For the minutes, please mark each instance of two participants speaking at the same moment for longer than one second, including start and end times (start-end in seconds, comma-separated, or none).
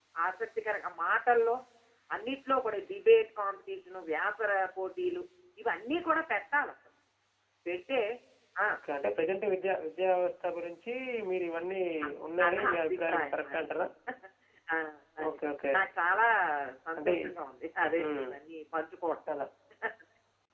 12.4-13.7